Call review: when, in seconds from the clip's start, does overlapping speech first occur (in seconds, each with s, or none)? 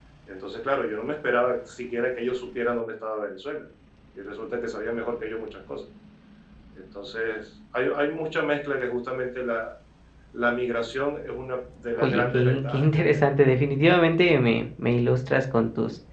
11.9 s